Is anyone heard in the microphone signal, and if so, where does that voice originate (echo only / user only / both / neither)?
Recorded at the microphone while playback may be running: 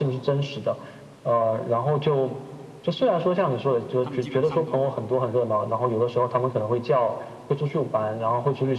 both